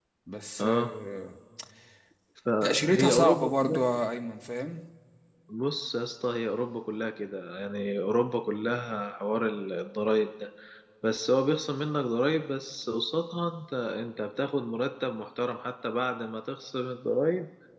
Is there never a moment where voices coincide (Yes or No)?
No